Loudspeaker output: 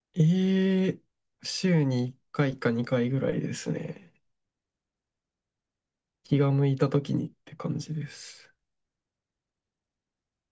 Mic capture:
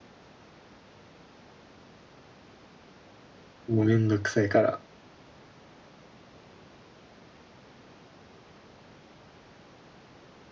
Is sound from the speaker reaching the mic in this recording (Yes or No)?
No